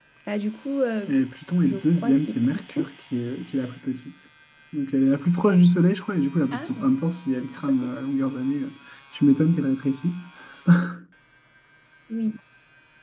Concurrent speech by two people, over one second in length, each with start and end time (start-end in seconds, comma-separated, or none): 1.6-2.9